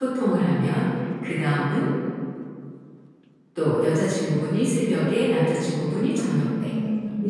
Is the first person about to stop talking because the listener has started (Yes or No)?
No